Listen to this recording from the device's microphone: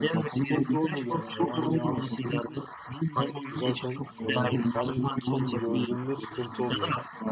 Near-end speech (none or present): present